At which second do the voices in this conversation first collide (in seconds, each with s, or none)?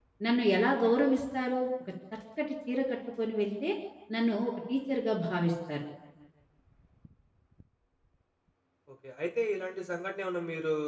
none